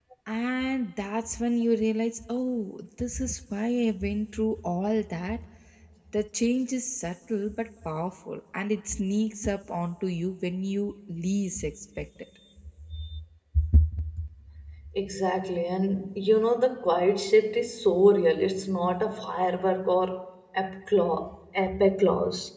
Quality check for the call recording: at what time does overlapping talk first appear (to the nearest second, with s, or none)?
none